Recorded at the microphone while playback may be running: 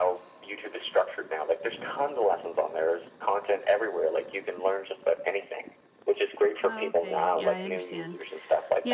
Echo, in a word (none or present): present